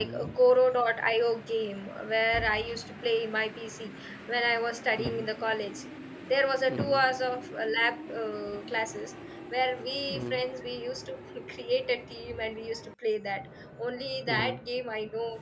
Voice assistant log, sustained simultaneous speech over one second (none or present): none